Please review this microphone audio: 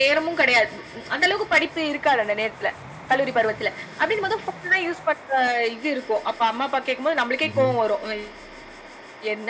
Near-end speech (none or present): present